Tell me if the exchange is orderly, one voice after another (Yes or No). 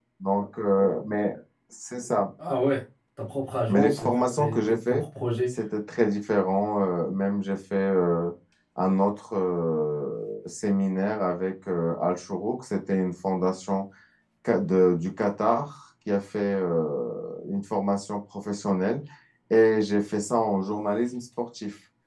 No